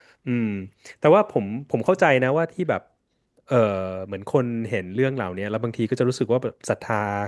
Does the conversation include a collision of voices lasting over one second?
No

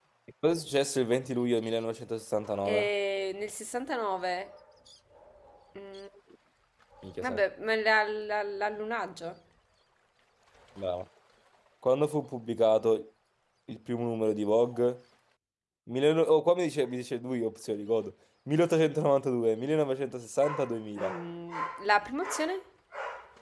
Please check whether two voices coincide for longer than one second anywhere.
No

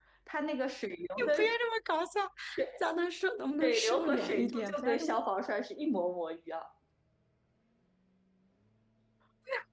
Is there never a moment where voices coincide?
No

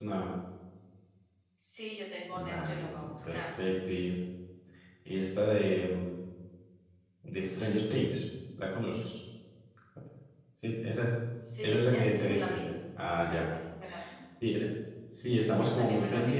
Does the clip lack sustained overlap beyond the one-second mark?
No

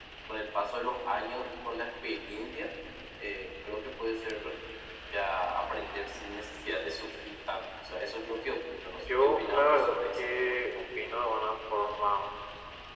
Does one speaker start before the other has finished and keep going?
Yes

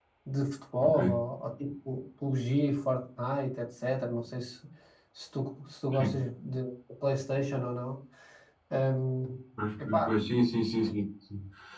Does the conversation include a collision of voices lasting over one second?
No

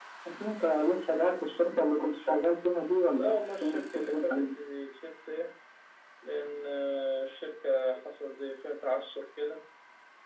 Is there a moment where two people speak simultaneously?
Yes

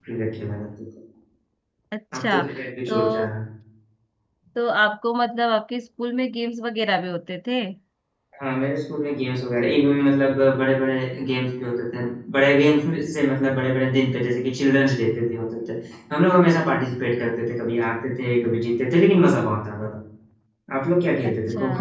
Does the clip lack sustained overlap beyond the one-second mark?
Yes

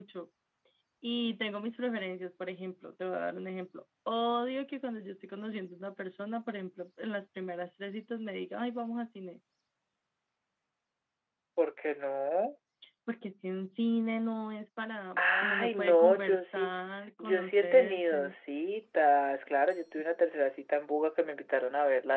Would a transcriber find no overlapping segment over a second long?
No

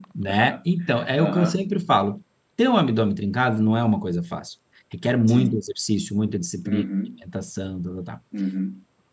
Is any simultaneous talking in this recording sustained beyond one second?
No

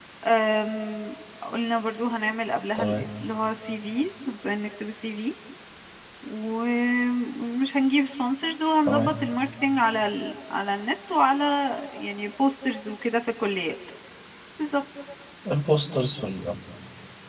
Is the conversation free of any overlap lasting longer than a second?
Yes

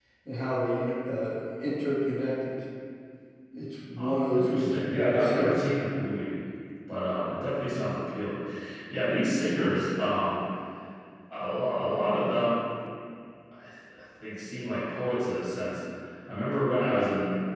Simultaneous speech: Yes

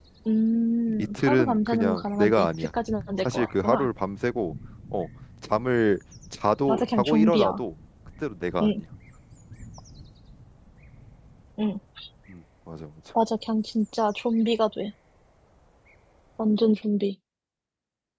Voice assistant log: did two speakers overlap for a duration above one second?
Yes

